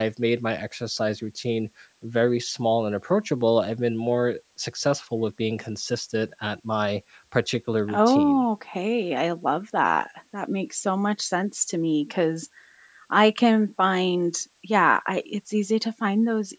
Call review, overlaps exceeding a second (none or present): none